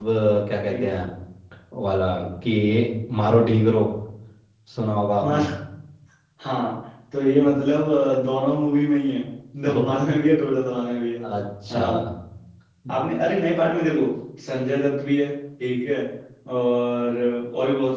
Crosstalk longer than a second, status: none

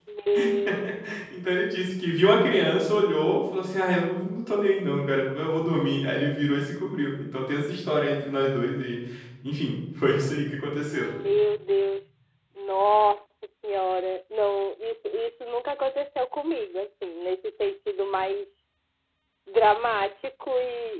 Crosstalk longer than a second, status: none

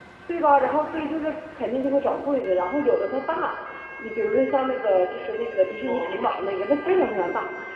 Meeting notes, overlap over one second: present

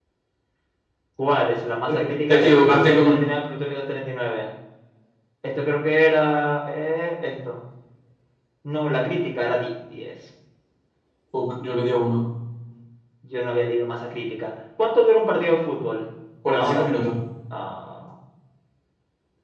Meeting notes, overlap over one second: present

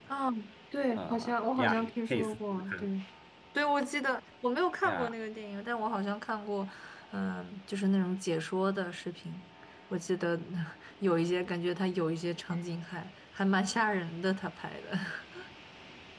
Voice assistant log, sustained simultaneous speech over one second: present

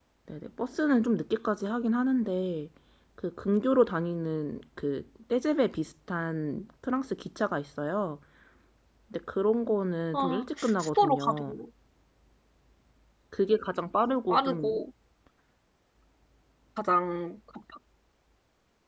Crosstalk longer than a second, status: present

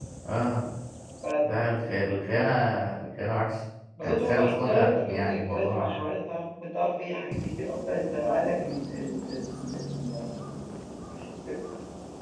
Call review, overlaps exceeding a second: present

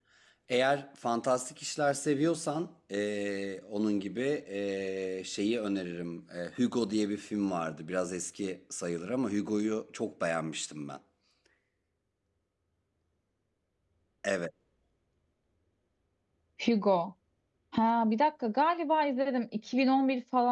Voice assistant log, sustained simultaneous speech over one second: none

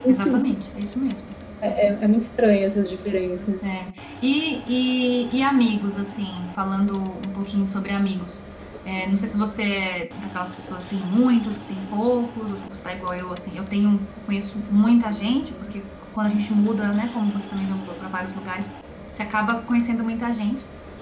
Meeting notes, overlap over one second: none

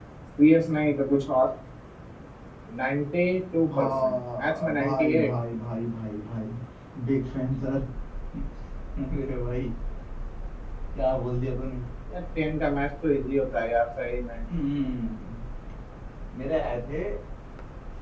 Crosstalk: present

